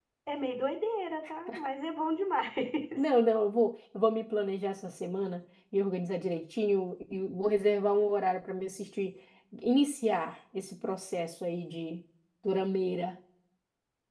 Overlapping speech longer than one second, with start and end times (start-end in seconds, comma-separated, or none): none